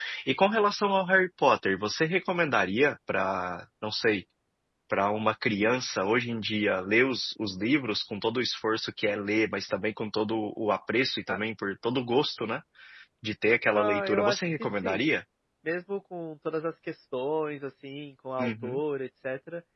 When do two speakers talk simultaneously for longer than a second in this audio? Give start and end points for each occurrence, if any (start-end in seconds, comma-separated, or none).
13.7-15.1